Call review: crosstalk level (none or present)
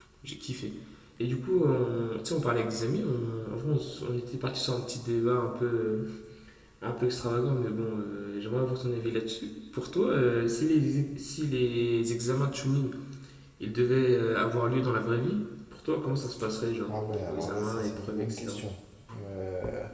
present